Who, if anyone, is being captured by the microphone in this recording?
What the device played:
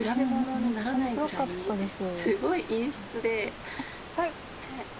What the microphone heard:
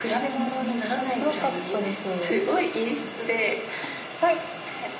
echo only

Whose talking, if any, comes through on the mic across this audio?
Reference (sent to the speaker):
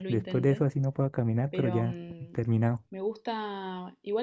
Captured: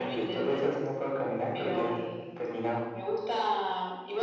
echo only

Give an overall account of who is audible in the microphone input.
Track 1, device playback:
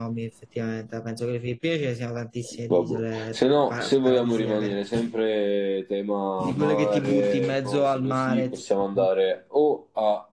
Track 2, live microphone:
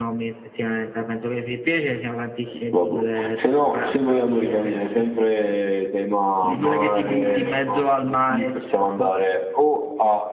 echo only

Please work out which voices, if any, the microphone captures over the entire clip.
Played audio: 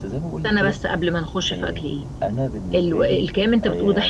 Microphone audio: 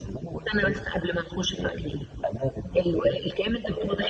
echo only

